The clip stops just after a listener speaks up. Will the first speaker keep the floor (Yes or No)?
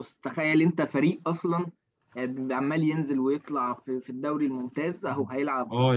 No